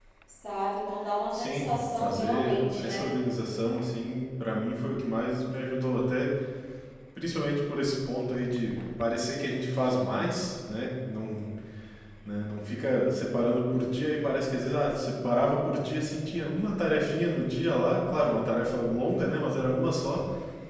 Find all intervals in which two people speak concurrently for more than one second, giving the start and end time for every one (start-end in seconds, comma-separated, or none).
1.3-3.1